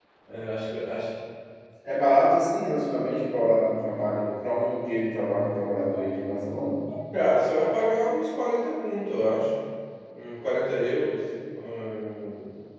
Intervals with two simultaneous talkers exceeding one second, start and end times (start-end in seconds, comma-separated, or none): none